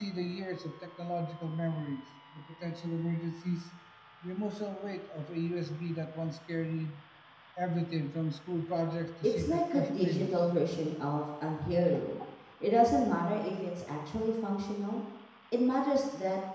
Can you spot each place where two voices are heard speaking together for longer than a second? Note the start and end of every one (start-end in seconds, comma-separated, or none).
9.2-10.5